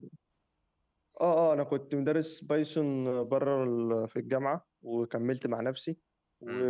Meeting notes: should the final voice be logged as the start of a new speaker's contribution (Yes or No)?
No